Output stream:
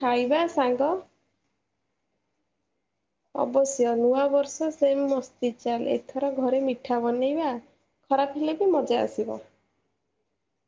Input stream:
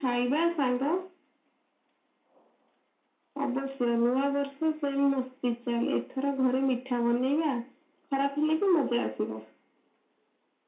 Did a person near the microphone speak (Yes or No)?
No